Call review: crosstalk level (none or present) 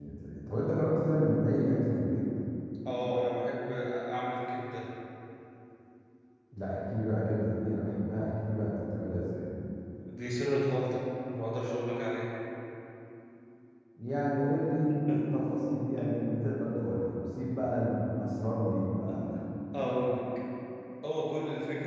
none